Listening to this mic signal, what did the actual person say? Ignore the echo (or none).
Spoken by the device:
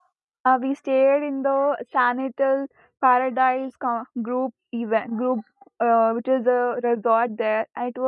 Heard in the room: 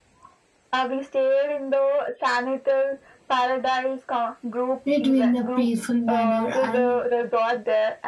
It in the peaceful manner. I